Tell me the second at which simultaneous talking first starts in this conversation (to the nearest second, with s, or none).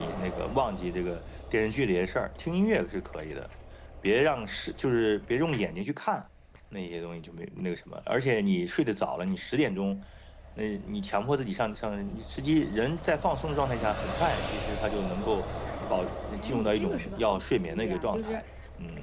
16 s